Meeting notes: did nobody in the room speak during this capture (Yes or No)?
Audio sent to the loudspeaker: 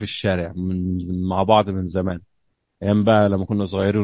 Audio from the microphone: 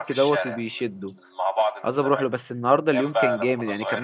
No